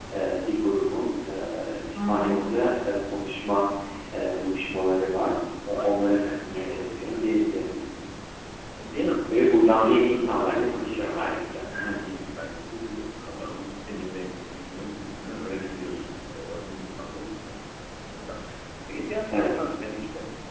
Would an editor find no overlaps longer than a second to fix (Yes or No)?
No